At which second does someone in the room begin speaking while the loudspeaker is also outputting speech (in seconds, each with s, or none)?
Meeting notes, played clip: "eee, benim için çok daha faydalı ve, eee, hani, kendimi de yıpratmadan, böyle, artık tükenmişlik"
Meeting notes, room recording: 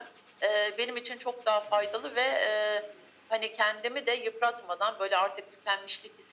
none